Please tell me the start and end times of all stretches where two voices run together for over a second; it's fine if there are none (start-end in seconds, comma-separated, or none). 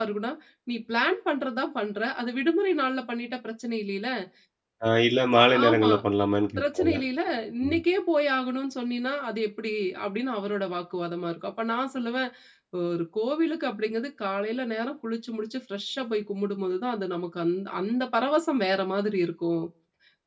none